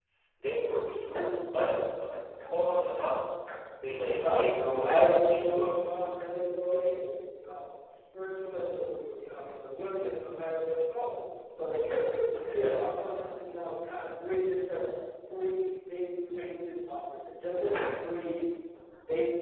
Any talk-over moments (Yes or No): Yes